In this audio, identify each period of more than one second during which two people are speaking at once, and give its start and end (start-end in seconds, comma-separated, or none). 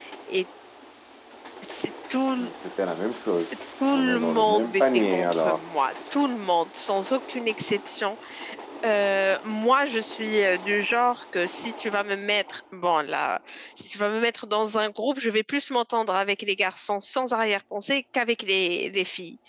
3.9-5.6